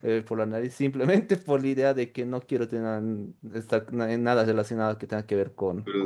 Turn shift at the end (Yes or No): Yes